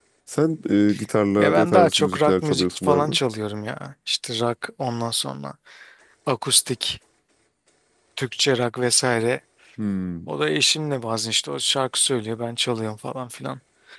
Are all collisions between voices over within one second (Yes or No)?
No